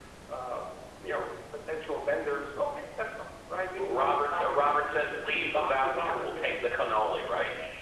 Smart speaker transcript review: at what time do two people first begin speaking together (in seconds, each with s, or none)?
3.8 s